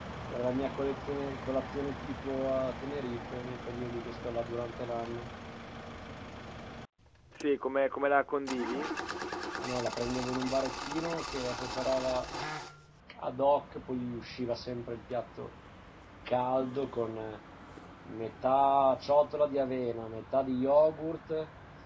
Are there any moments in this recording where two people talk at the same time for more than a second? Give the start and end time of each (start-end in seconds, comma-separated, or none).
none